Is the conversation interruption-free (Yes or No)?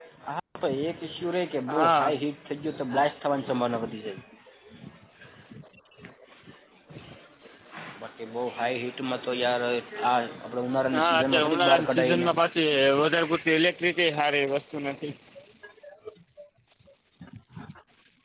No